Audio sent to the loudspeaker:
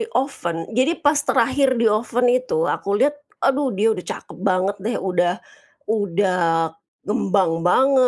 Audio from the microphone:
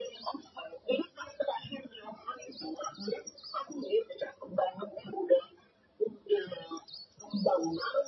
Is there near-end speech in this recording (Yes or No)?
No